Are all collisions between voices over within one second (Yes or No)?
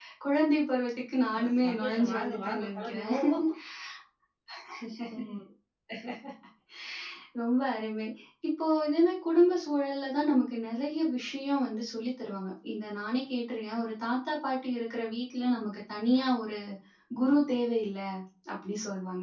No